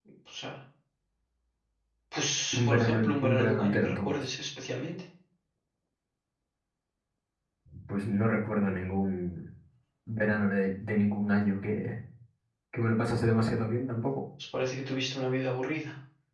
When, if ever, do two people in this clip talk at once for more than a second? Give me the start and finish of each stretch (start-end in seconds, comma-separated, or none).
2.5-4.2